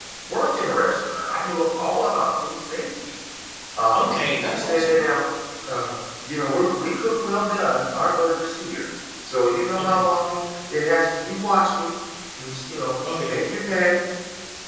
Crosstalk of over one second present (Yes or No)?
No